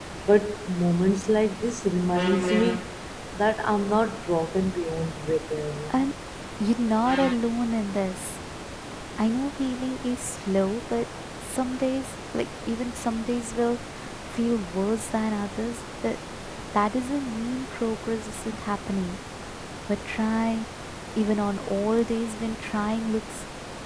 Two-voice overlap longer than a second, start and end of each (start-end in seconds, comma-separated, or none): none